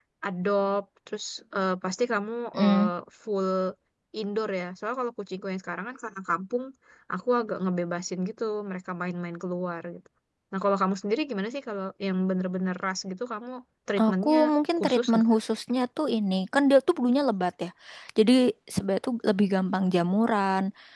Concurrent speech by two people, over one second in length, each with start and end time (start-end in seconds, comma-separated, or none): none